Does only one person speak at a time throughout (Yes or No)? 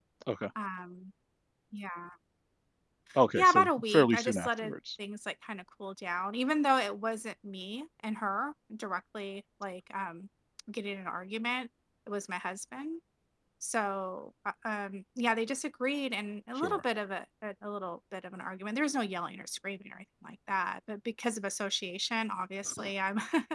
No